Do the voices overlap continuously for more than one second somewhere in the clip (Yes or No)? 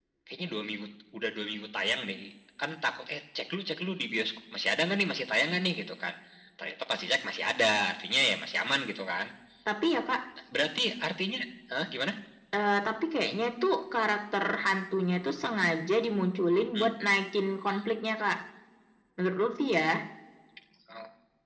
No